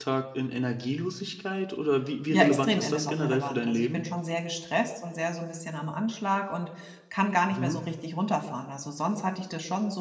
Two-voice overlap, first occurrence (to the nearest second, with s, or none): 2 s